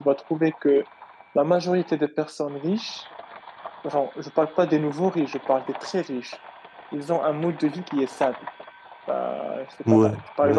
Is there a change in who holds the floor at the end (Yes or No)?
No